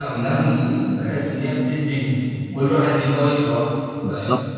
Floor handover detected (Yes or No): Yes